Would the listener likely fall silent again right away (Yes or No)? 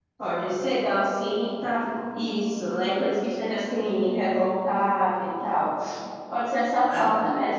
Yes